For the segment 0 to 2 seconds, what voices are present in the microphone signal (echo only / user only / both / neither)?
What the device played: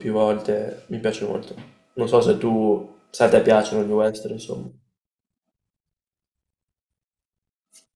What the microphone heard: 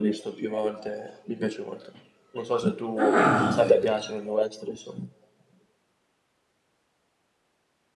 echo only